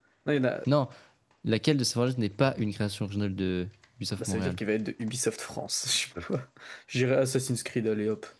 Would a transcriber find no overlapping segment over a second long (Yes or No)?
Yes